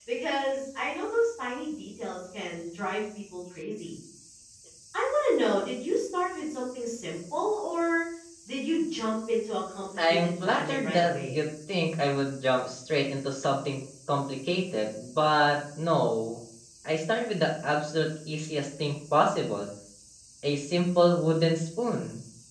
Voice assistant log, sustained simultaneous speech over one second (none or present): present